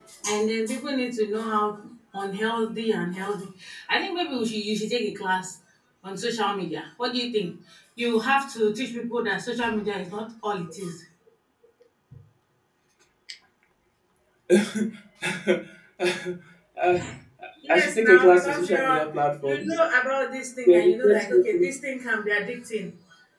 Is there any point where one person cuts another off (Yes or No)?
Yes